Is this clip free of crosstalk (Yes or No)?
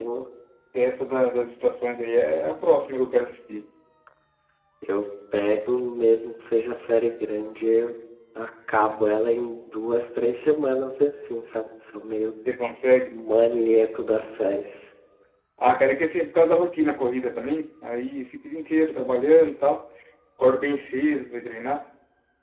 Yes